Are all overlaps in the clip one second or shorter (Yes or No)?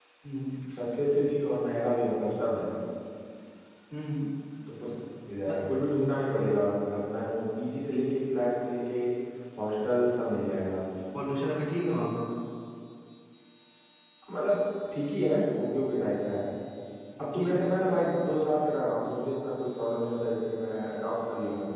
Yes